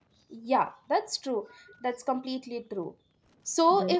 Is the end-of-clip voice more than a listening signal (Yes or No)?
No